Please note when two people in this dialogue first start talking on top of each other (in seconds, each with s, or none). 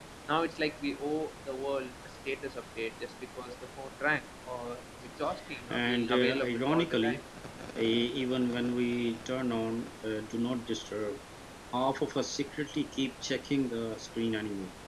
5.5 s